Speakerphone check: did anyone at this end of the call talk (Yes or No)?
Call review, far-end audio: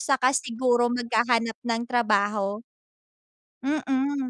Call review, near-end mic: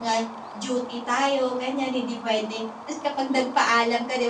Yes